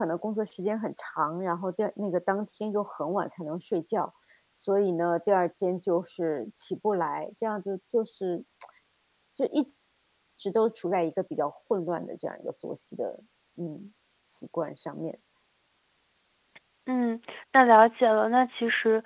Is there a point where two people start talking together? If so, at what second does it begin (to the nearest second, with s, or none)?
none